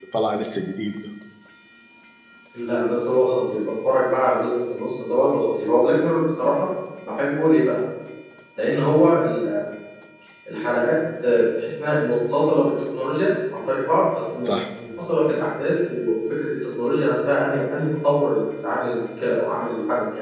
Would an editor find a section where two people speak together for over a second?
No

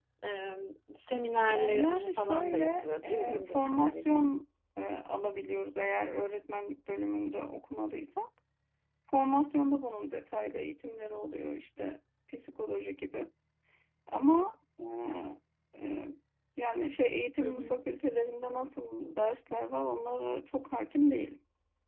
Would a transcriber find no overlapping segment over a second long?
No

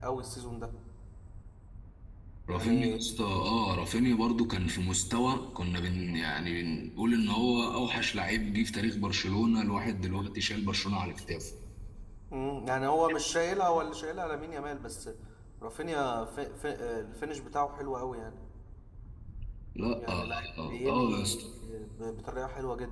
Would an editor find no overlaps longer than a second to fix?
No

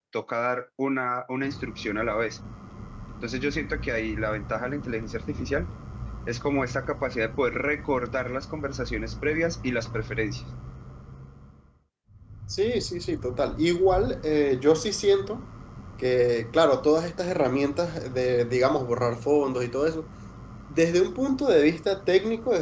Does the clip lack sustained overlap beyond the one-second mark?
Yes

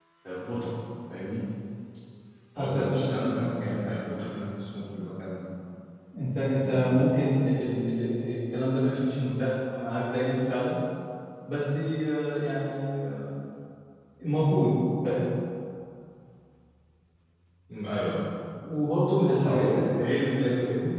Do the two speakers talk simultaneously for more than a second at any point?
Yes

